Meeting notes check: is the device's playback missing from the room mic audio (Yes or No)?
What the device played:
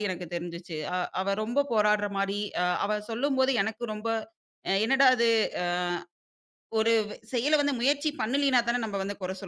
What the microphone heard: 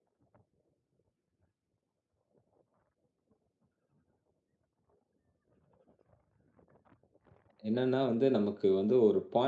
Yes